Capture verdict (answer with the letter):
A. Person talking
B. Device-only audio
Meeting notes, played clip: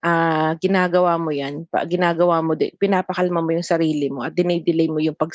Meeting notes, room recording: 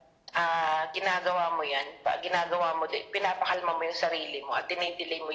B